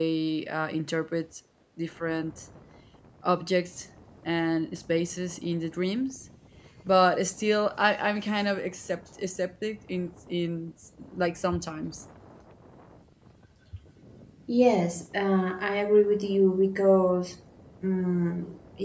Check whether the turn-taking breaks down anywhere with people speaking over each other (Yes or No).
No